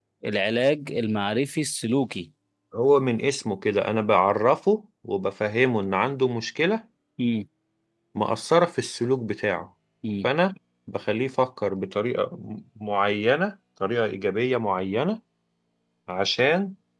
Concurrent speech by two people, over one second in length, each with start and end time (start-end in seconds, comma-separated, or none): none